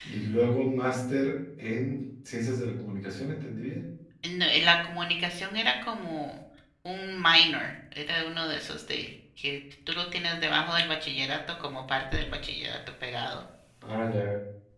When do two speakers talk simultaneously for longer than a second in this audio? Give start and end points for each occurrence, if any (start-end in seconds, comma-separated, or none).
none